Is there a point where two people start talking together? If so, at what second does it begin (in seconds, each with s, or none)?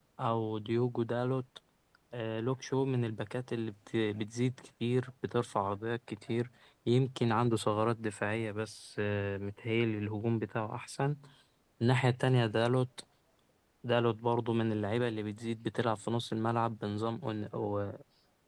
none